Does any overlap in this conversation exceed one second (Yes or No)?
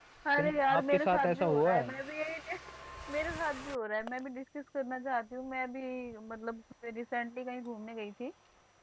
Yes